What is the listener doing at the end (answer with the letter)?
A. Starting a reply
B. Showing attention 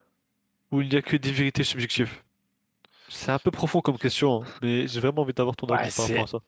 A